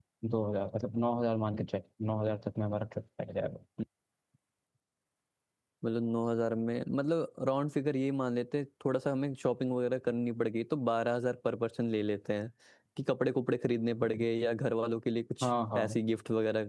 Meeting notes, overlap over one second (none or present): none